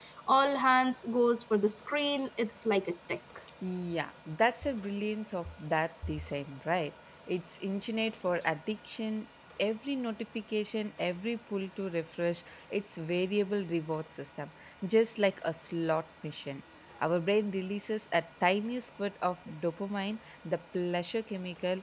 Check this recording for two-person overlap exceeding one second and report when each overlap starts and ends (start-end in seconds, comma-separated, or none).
none